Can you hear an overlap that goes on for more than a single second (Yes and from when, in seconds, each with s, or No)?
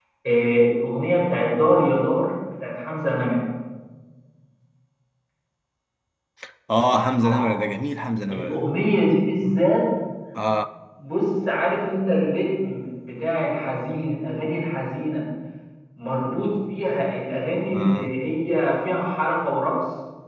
No